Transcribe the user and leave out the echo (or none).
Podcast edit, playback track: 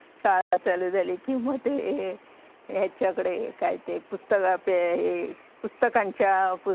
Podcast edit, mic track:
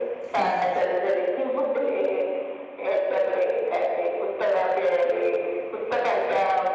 कारण